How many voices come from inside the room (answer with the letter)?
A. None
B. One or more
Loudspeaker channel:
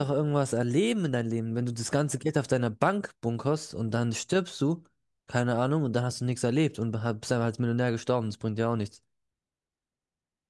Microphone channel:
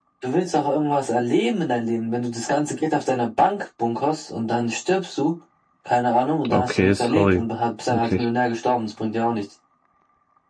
B